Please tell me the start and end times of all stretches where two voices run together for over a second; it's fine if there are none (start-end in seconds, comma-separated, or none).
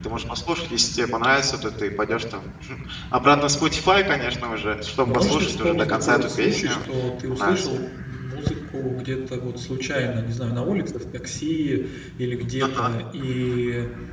5.0-6.8